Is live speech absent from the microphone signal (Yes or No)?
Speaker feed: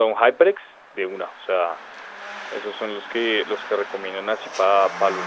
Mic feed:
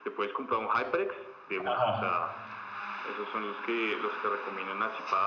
No